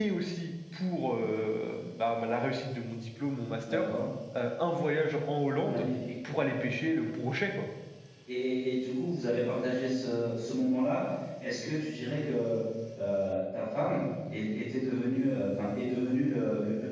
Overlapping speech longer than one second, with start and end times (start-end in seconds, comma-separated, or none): none